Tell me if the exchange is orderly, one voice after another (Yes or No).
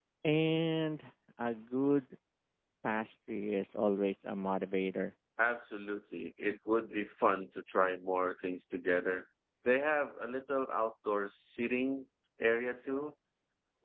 Yes